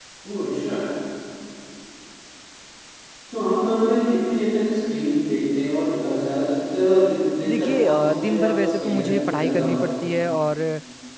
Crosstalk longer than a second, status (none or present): present